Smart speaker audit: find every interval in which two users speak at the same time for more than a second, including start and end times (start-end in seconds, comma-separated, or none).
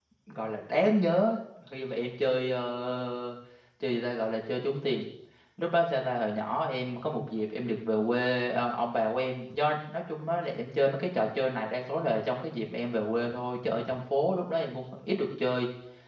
none